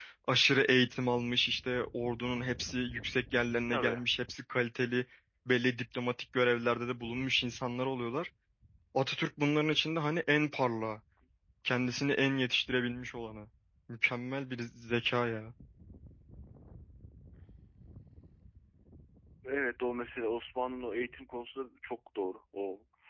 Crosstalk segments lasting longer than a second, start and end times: none

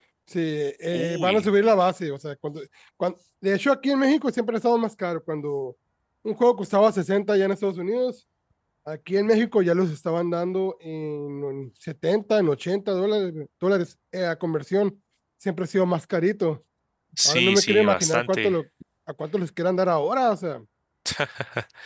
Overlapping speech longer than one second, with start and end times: 17.2-18.6

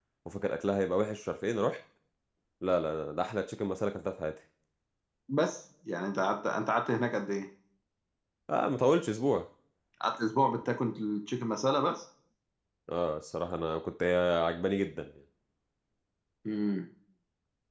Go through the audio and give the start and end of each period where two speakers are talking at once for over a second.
none

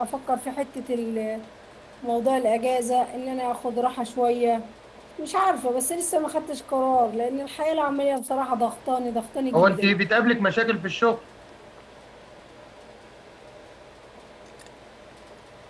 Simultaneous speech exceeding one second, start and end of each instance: none

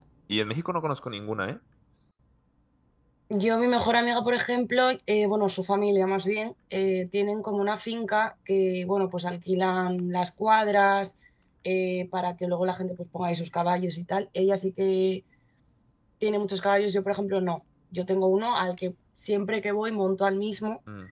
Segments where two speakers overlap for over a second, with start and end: none

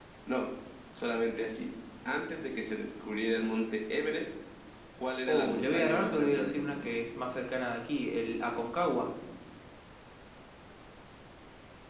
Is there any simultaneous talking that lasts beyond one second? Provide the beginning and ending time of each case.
5.3-6.9

